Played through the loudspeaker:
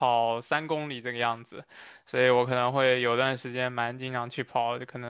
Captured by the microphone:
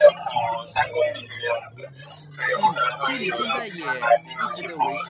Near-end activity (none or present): present